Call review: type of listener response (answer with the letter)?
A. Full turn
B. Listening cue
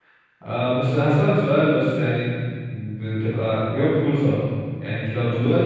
B